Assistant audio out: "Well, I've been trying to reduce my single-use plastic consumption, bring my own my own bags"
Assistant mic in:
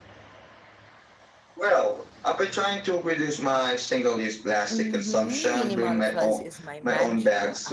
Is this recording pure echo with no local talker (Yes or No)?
No